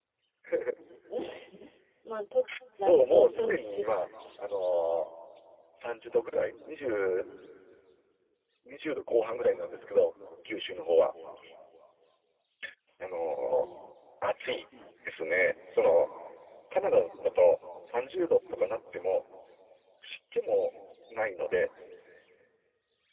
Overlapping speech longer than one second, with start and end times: 2.8-4.1

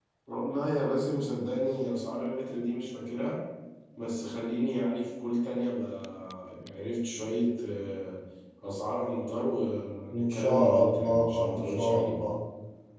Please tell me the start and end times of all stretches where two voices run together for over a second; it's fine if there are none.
10.1-12.2

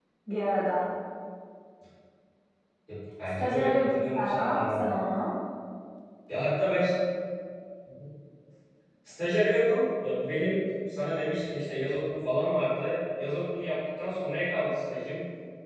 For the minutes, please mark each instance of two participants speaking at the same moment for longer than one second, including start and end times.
3.4-4.9

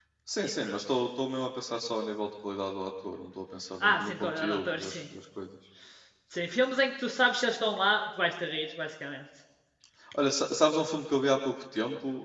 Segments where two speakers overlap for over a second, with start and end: 3.8-5.0

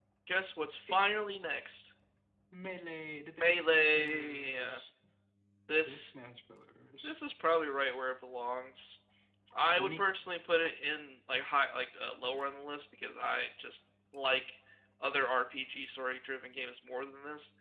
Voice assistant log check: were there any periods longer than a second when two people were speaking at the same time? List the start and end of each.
3.4-4.8

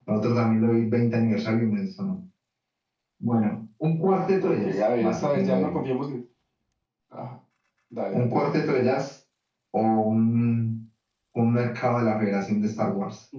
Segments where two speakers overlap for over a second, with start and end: 4.4-5.8

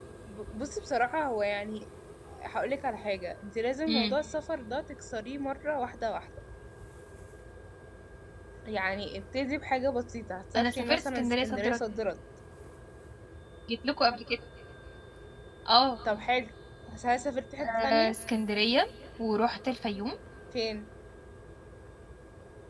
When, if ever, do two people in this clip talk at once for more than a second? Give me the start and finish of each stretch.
10.6-11.8

